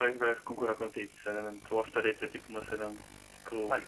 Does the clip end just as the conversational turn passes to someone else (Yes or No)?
No